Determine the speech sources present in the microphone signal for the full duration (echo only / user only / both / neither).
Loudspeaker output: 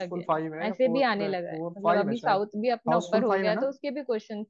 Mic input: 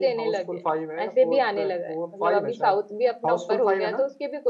echo only